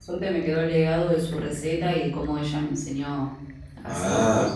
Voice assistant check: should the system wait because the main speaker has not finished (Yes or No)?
No